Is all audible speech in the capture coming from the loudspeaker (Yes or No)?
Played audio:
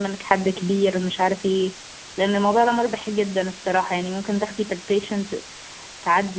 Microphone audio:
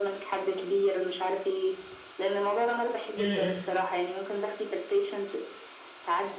No